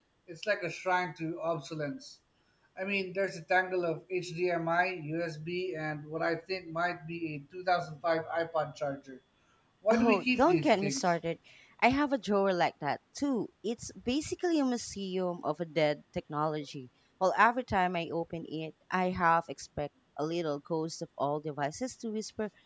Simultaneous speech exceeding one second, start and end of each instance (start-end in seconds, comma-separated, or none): 9.9-11.1